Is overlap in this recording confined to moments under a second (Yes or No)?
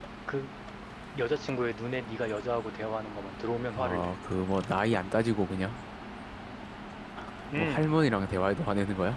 Yes